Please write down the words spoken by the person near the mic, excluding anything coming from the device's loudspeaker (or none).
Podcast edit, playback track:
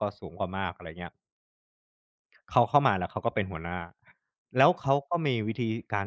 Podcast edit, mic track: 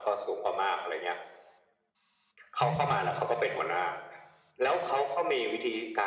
อืม